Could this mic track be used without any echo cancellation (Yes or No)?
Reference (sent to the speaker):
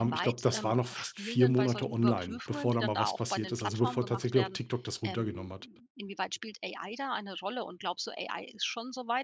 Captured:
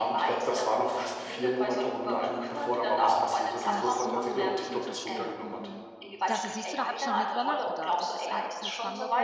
No